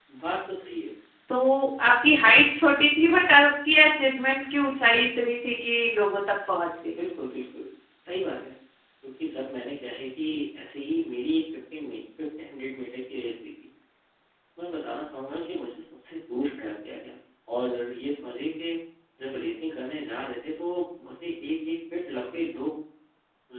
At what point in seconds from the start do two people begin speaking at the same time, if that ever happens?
none

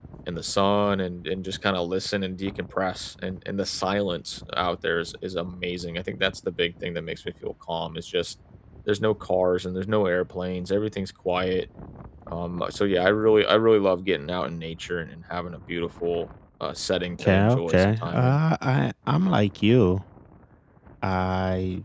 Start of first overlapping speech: 17.1 s

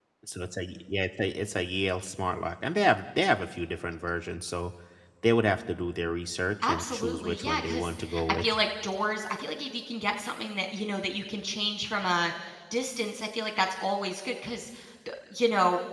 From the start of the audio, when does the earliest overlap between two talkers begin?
6.6 s

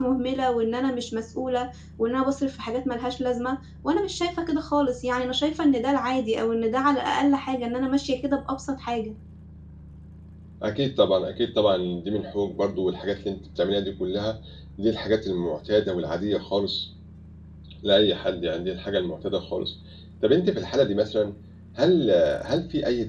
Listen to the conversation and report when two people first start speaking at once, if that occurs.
none

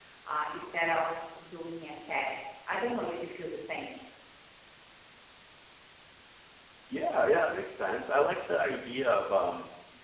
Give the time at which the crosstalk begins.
none

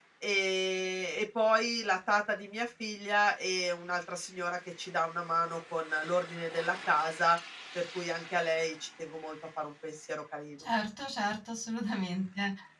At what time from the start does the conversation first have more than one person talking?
none

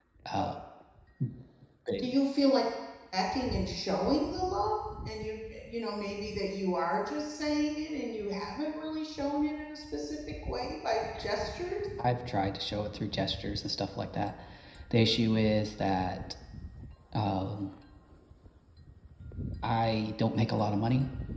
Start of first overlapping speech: none

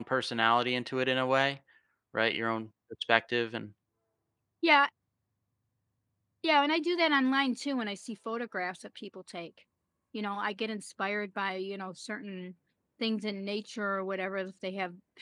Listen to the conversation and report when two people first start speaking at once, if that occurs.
none

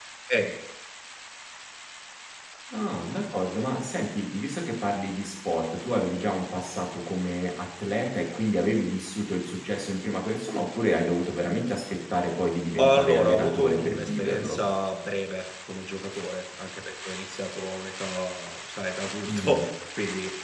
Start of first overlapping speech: 12.8 s

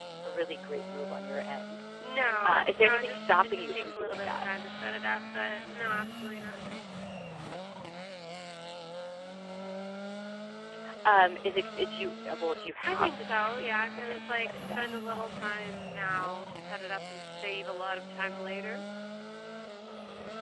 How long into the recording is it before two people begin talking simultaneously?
2.4 s

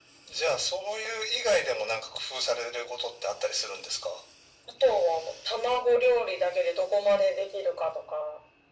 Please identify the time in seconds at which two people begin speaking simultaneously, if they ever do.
none

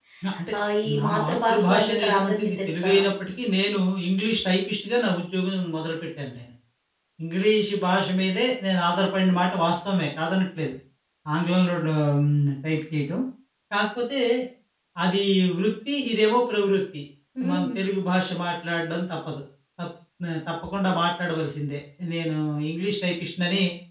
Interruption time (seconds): 1.0 s

